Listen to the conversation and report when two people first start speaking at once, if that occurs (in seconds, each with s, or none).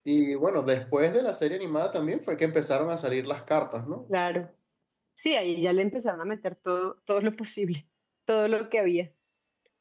none